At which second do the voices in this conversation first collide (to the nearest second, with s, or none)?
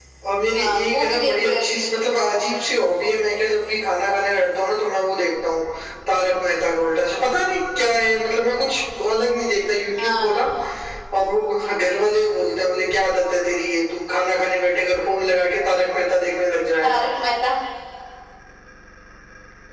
1 s